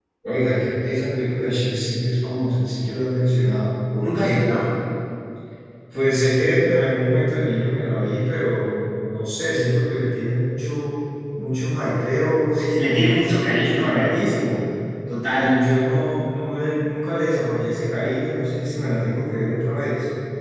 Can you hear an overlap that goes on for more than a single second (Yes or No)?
Yes